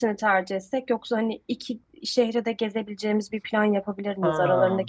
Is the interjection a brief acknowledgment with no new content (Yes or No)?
Yes